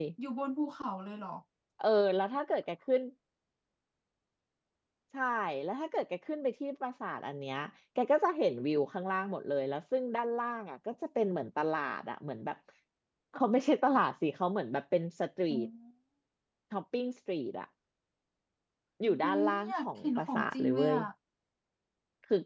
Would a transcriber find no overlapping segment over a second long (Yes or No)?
No